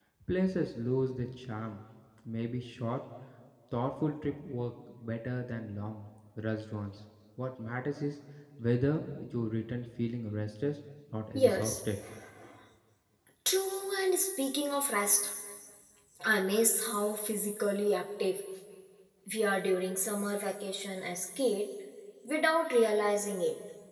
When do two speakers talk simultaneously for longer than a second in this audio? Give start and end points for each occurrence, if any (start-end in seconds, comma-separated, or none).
none